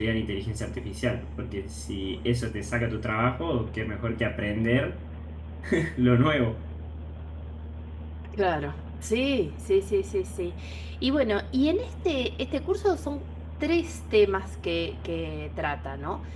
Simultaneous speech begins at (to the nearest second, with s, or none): none